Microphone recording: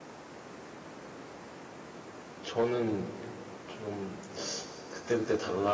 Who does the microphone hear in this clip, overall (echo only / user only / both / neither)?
user only